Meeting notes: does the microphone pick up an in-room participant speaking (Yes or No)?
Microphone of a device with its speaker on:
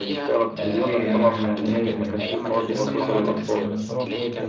Yes